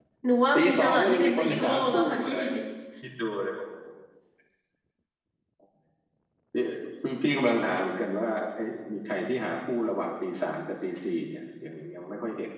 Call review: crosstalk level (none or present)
present